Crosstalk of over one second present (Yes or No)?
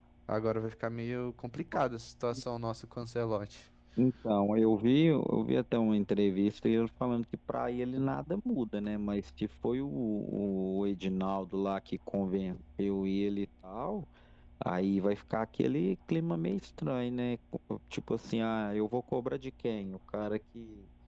No